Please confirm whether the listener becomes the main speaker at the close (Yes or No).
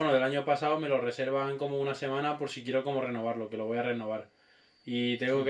No